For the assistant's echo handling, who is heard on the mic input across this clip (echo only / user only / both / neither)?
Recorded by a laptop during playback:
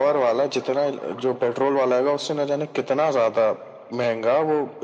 echo only